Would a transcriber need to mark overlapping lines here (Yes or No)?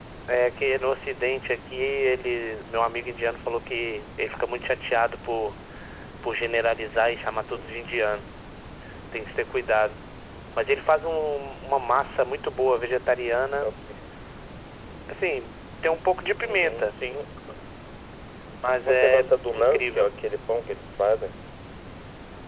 Yes